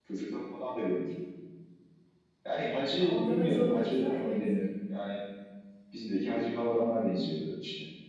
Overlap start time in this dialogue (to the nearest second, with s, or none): 3 s